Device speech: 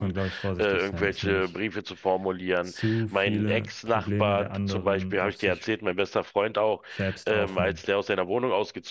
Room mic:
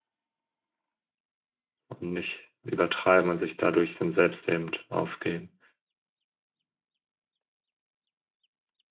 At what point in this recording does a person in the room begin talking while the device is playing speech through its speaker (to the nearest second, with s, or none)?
2 s